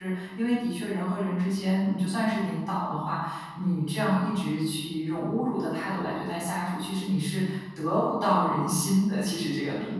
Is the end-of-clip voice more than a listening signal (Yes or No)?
Yes